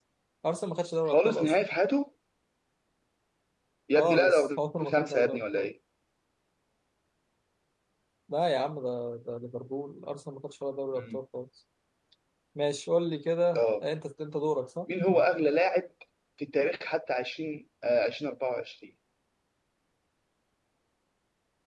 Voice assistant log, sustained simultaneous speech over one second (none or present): present